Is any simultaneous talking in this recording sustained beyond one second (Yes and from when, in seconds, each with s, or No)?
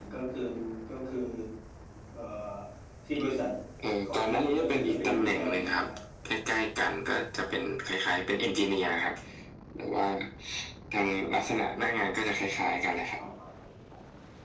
Yes, from 4.0 s